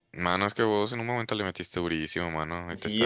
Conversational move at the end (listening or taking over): taking over